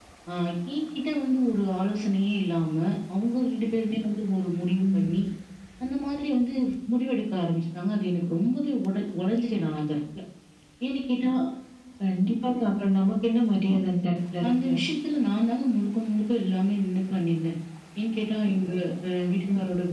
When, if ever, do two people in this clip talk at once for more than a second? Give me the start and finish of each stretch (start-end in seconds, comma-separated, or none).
none